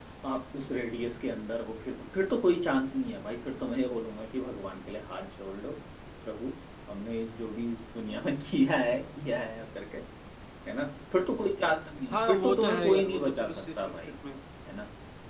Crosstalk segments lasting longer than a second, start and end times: 12.1-14.1

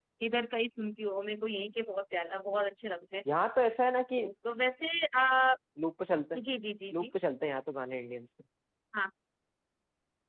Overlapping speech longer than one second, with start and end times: none

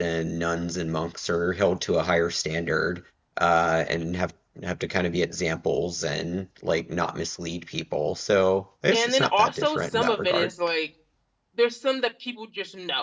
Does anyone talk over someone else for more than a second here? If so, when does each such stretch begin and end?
8.9-10.5

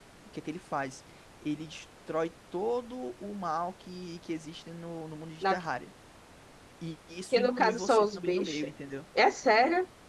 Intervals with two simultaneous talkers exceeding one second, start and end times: 7.3-8.7

